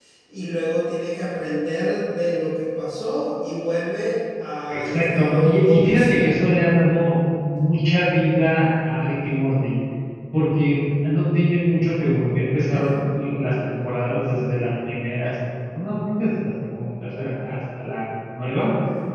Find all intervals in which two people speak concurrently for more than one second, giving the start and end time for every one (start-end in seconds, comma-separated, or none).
4.7-6.3